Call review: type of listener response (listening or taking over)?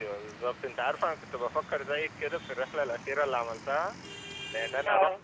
listening